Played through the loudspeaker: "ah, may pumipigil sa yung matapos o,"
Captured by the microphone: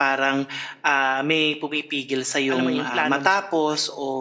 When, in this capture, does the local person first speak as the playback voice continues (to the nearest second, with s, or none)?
3 s